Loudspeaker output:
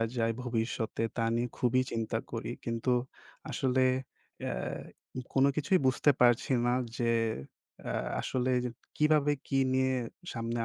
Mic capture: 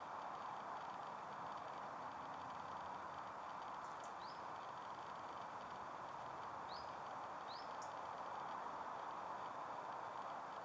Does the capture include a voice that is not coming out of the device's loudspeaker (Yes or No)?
No